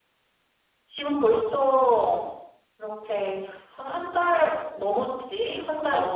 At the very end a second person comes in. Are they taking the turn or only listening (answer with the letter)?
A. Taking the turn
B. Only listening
B